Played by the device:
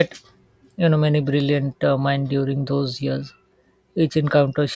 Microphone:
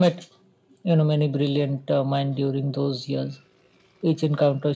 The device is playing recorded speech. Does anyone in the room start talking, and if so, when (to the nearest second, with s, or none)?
none